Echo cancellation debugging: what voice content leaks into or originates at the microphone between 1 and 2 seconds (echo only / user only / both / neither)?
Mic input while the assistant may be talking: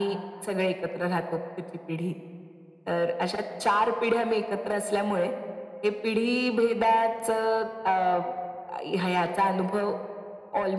echo only